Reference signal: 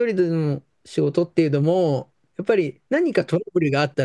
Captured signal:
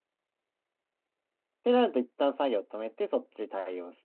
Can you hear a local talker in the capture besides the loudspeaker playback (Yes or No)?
Yes